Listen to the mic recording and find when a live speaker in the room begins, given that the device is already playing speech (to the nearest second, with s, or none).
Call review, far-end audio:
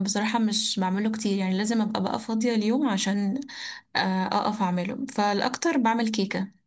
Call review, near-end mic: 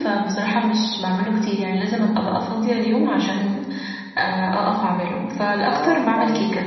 6 s